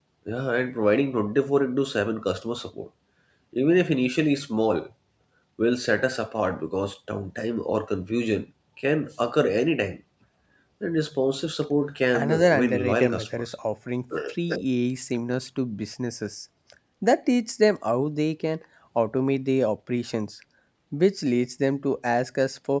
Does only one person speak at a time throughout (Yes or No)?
No